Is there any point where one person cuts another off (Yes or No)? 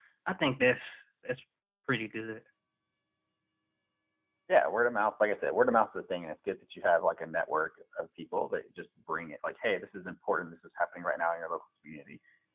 No